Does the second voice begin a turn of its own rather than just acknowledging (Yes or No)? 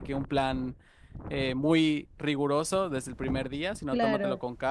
No